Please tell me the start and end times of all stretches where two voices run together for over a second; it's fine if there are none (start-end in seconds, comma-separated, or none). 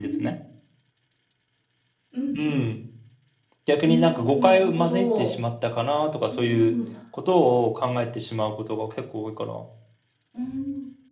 3.8-5.3